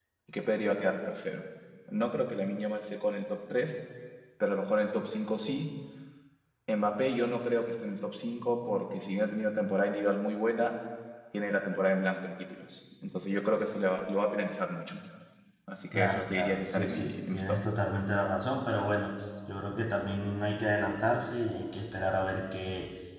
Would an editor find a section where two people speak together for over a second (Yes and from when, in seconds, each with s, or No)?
Yes, from 15.9 s